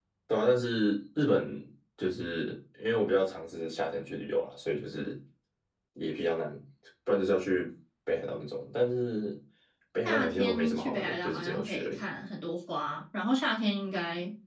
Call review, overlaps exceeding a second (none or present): present